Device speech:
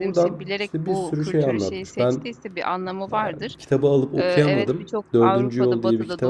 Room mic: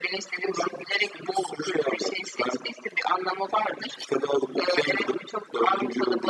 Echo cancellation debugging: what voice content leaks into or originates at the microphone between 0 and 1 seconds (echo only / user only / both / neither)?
echo only